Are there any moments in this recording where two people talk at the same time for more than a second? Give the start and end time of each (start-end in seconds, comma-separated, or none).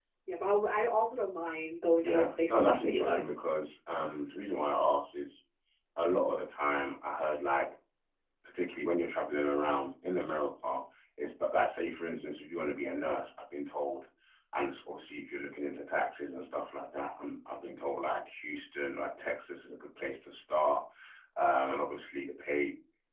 2.0-3.4